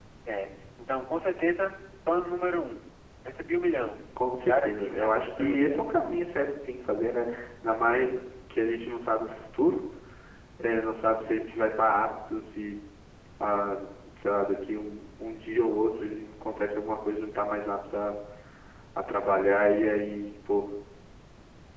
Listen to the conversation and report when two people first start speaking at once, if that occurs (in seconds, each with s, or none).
4.4 s